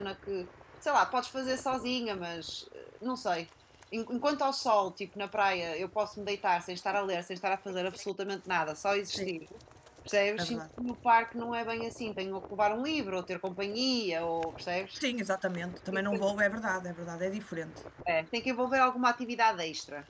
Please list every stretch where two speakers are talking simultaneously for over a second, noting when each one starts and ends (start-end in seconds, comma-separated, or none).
none